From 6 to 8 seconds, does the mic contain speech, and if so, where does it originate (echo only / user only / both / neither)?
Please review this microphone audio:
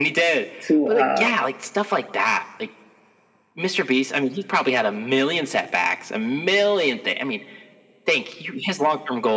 echo only